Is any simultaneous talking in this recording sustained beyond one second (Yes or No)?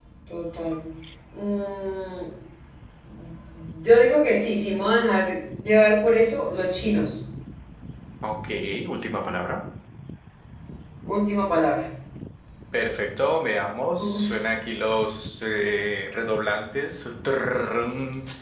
No